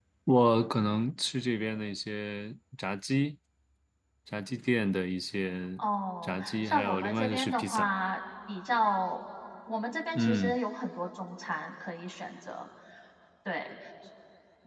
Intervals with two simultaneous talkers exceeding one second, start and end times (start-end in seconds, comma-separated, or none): 6.2-7.9